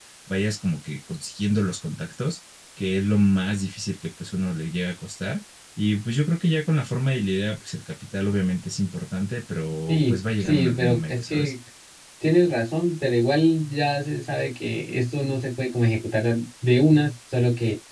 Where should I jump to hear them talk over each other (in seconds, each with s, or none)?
9.9 s